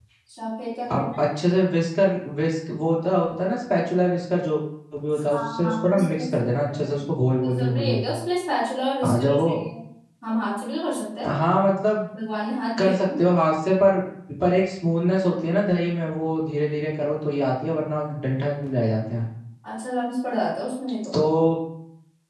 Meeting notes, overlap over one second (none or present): present